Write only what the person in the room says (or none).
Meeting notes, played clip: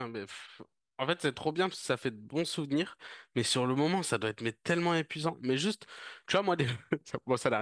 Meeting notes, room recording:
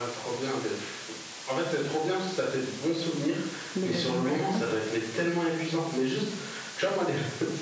le bed and breakfast.